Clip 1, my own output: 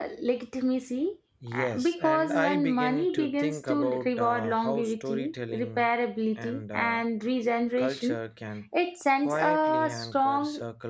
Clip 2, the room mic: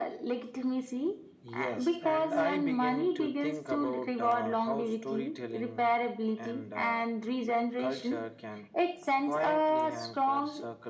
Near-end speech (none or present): none